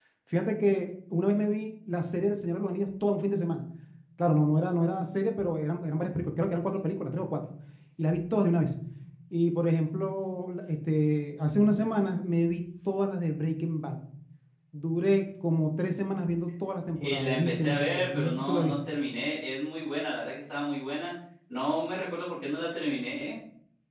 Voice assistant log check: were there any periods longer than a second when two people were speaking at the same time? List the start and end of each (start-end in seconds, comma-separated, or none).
17.0-18.8